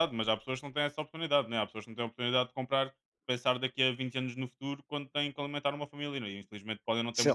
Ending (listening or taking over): taking over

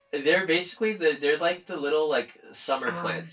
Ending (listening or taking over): listening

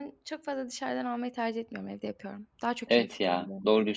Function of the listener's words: taking over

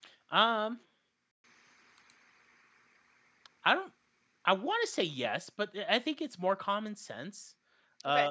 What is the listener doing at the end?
listening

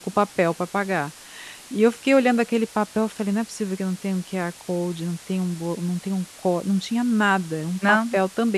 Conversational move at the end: listening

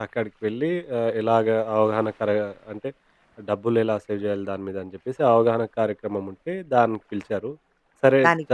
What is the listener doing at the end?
listening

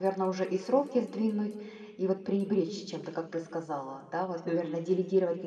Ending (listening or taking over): listening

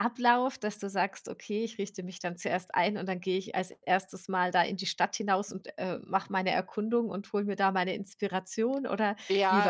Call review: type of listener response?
taking over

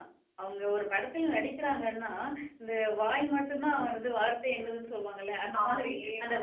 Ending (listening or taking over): listening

